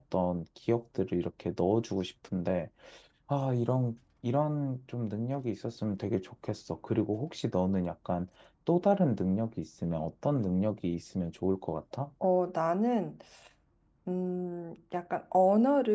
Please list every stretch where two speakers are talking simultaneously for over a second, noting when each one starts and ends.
none

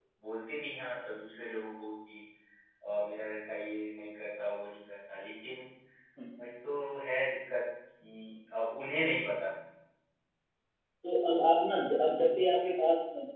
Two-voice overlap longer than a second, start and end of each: none

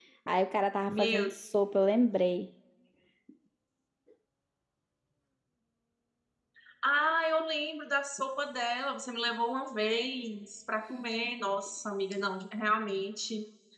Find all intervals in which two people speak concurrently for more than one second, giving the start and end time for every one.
none

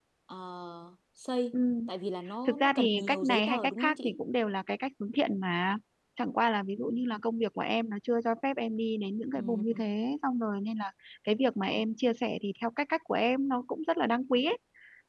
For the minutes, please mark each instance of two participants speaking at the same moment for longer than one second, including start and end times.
2.4-4.2

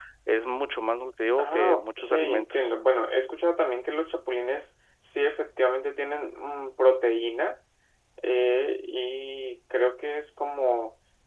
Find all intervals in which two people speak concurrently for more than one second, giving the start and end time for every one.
1.4-2.7

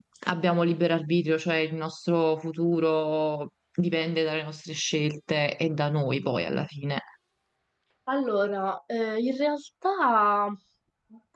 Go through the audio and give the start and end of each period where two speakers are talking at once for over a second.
none

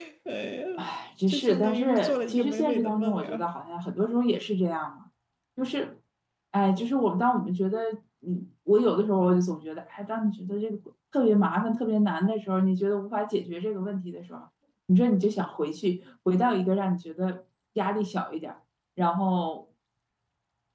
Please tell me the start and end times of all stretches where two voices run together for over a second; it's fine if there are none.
1.3-3.5

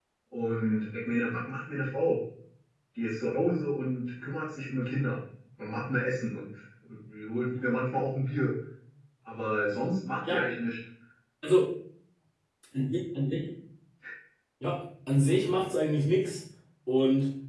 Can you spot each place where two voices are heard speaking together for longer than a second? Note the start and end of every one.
none

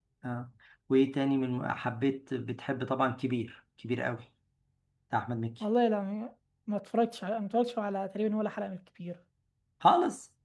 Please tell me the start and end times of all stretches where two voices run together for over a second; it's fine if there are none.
none

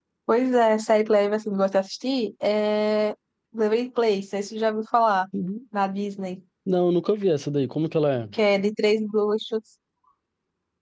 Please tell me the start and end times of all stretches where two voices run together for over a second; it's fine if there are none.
none

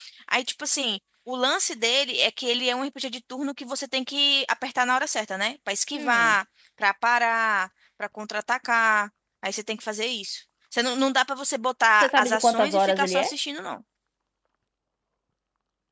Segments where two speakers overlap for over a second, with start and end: 12.0-13.3

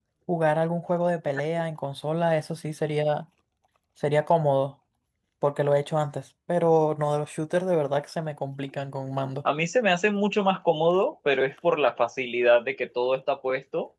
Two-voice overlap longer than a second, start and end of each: none

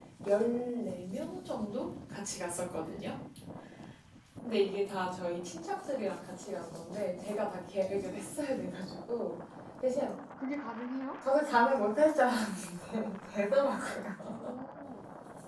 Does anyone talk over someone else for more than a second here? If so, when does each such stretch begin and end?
none

